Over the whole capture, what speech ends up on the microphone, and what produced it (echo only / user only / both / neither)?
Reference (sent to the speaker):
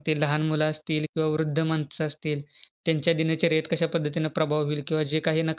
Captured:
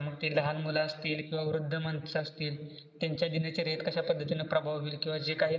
echo only